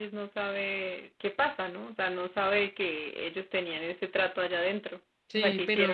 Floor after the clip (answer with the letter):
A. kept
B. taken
B